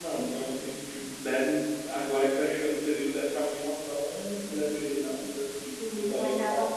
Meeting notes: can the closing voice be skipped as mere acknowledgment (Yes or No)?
No